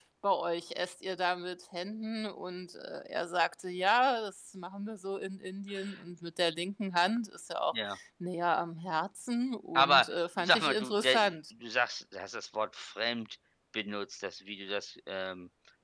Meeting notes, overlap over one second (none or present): present